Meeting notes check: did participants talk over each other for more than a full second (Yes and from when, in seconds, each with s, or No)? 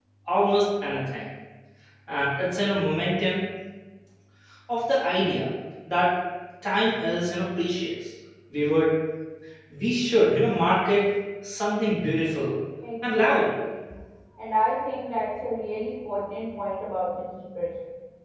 No